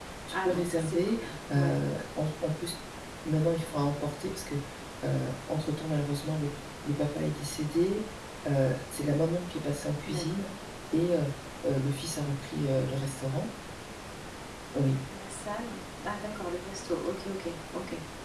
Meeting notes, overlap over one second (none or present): present